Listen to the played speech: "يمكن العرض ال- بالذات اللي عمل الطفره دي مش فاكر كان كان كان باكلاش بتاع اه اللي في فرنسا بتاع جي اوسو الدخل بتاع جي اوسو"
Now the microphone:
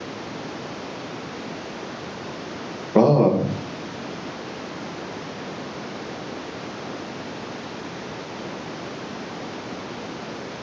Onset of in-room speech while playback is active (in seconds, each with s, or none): 3.0 s